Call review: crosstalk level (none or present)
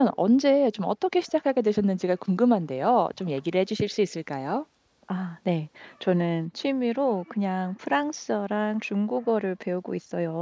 none